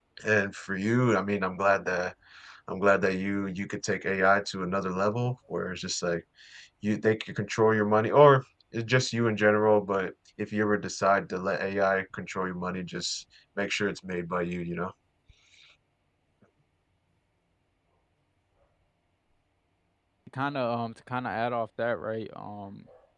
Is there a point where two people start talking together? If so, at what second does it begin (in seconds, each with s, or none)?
none